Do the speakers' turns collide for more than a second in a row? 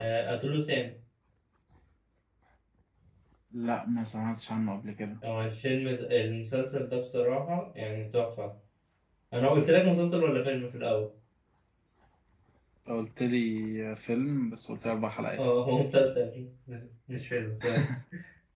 No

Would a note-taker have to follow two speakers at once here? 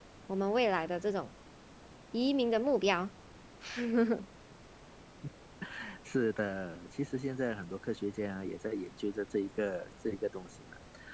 No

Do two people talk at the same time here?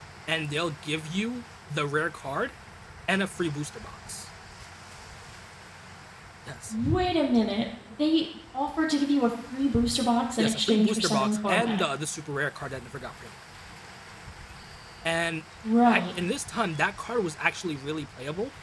Yes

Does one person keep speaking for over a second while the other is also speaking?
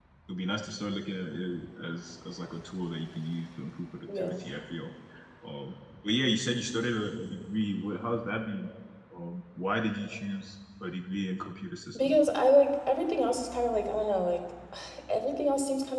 No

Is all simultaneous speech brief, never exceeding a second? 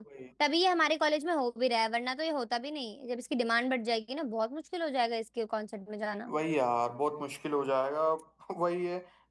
Yes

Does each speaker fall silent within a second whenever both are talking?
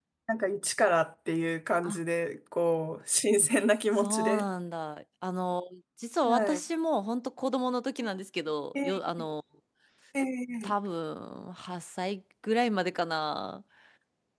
Yes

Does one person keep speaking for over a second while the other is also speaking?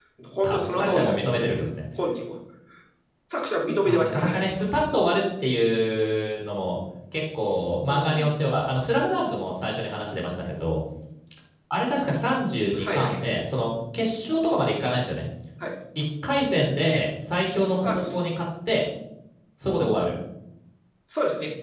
Yes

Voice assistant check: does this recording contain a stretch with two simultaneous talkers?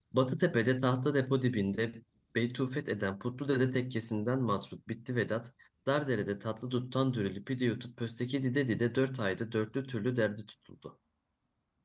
No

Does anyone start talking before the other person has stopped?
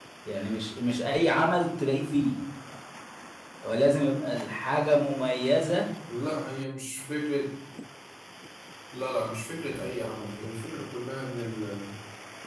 No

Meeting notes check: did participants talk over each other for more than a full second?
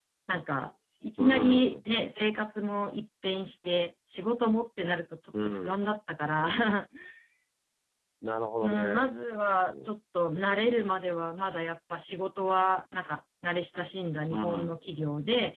Yes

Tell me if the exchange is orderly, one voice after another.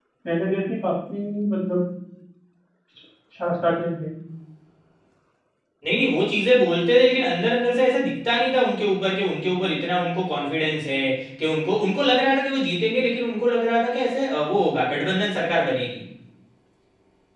Yes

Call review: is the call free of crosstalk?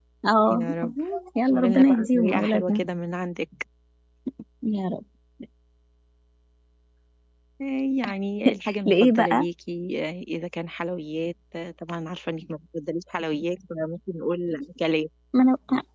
No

